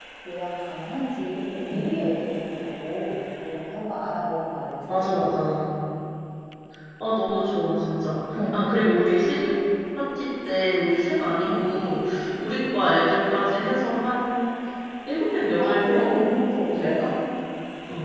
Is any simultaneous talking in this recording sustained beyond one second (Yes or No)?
No